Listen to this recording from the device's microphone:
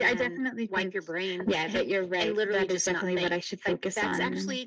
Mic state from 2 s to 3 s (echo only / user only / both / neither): echo only